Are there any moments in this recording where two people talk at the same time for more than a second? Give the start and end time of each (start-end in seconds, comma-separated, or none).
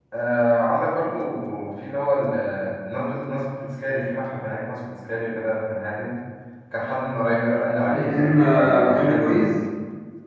7.9-9.5